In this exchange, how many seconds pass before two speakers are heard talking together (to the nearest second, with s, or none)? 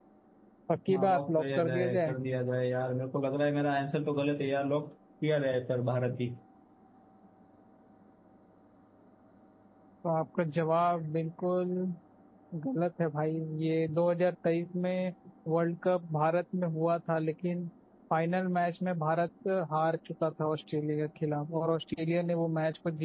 1 s